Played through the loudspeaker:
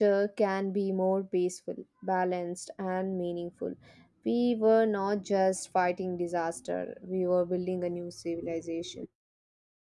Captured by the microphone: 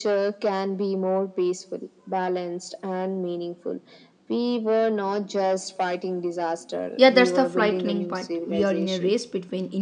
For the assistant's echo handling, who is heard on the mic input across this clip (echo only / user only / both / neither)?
both